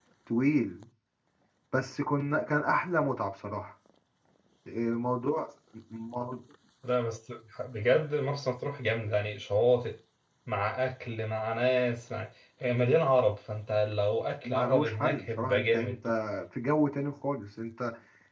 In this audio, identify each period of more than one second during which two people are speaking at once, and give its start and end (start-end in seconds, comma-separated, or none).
14.4-16.0